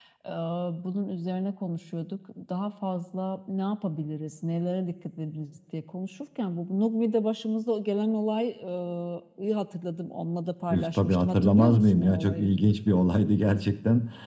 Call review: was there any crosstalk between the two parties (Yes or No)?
Yes